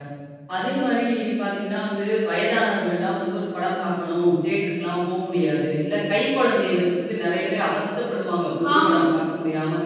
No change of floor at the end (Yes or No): Yes